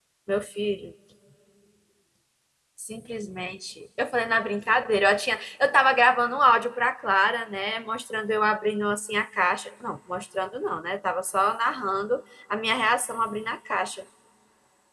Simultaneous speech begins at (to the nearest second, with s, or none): none